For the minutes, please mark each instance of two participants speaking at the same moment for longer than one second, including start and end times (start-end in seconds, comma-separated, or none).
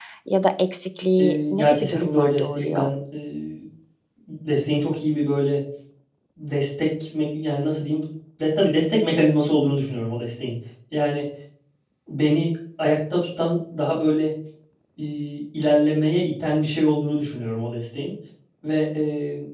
1.2-2.9